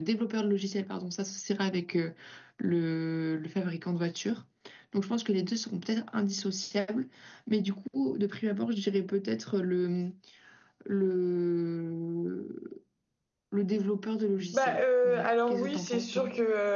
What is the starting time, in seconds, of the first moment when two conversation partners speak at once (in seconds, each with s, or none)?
14.5 s